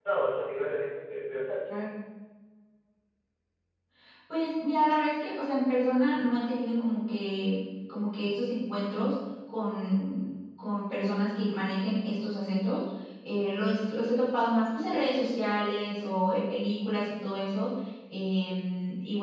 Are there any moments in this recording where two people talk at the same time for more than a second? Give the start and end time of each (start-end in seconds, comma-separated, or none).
none